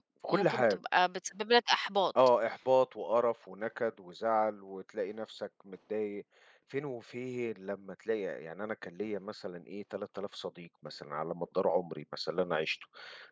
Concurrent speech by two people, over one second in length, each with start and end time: none

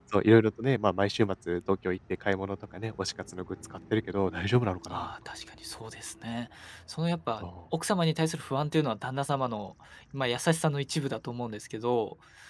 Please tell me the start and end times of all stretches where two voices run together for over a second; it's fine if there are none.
none

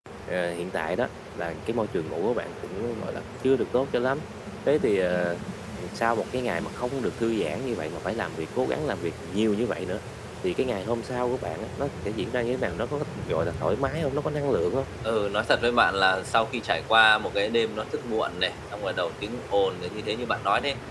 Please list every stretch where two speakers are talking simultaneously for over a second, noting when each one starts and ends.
none

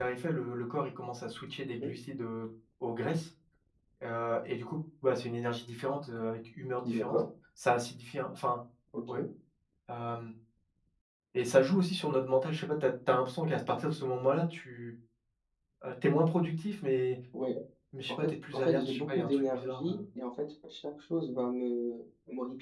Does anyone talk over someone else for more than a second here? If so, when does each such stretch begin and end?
18.1-20.0

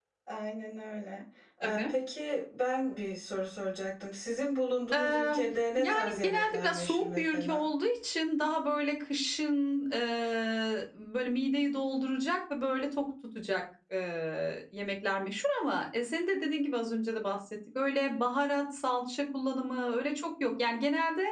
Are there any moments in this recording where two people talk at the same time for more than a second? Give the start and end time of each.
5.8-7.7

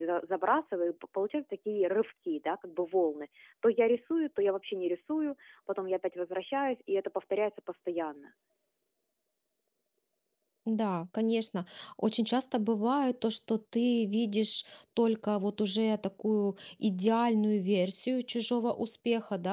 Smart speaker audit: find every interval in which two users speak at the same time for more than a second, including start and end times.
none

